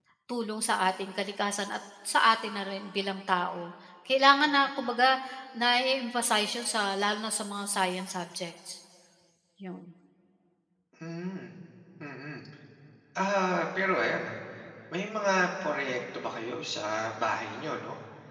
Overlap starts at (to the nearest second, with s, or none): none